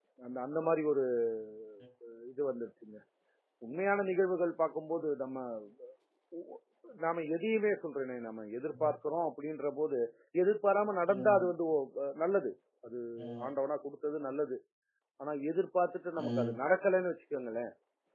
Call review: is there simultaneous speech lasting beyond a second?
No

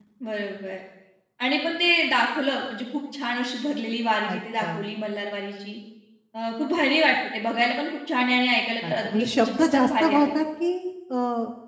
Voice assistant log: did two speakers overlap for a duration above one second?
Yes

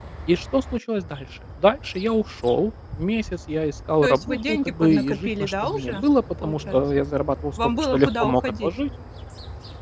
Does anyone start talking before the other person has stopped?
Yes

